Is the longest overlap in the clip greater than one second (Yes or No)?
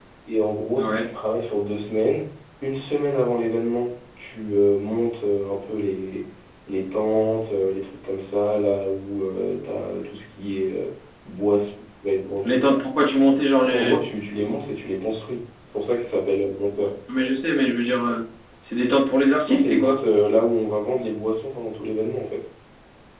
No